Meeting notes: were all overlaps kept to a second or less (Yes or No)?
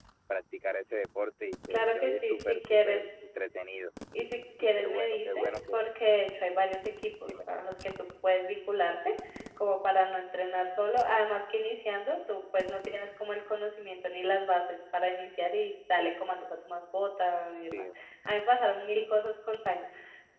No